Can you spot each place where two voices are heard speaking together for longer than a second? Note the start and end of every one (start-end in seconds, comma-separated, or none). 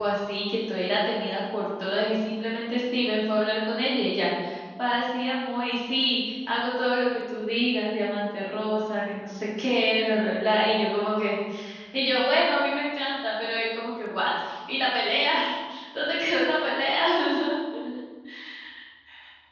none